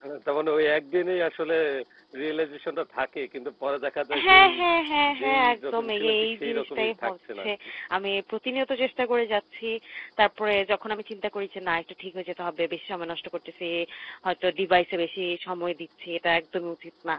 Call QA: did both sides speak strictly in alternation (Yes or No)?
No